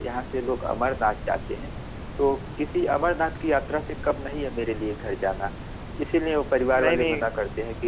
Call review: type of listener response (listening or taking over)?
listening